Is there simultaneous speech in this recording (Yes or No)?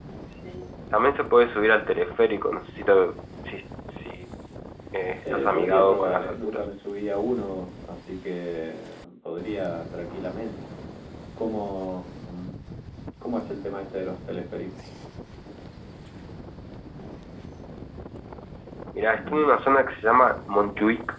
Yes